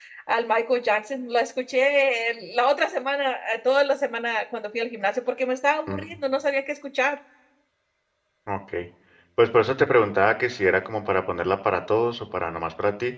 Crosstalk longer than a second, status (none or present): none